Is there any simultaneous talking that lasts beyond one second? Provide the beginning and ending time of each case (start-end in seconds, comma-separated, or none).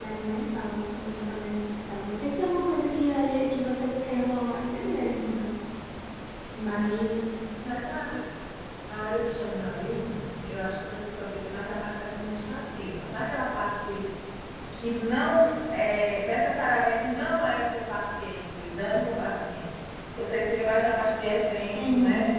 none